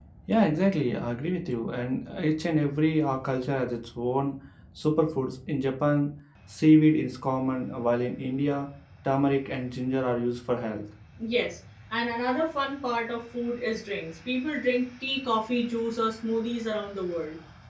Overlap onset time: none

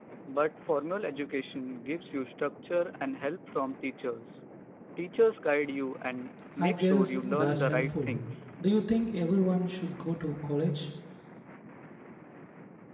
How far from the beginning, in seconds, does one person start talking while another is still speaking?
6.6 s

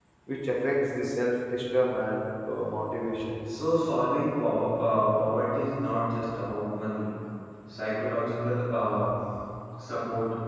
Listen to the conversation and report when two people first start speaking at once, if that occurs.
none

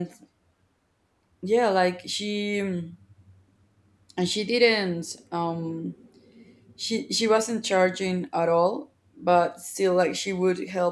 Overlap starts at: none

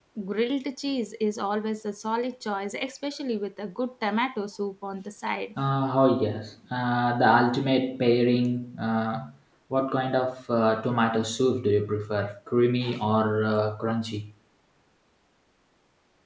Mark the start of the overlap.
none

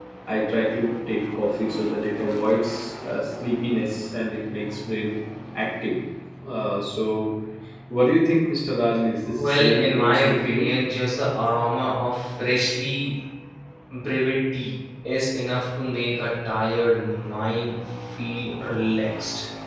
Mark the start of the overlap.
9.4 s

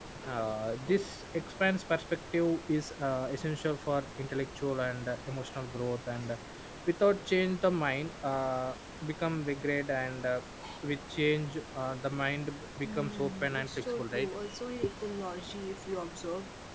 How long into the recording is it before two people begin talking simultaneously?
12.8 s

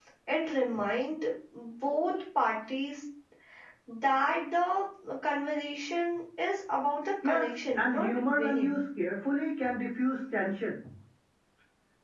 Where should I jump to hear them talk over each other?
7.2 s

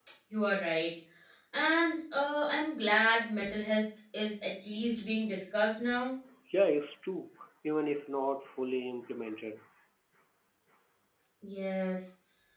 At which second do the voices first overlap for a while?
none

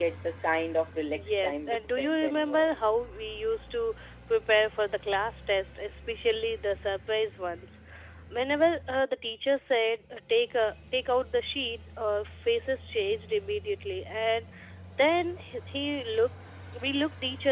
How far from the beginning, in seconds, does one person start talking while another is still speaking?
1.1 s

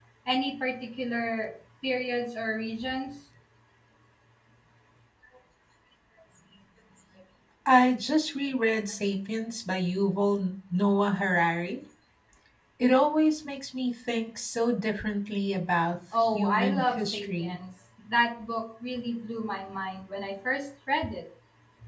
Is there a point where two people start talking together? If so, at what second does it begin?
16.1 s

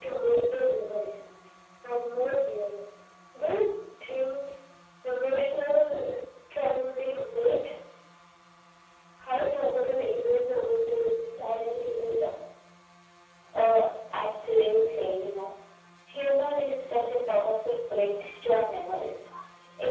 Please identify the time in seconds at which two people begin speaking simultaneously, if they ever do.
none

